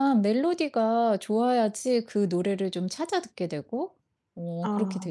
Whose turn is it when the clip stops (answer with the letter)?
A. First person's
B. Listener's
B